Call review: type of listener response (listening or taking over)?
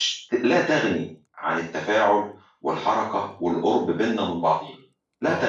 taking over